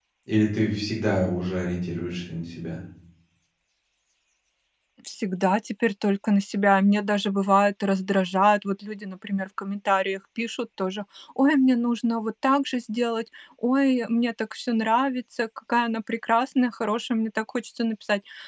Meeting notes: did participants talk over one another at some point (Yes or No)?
No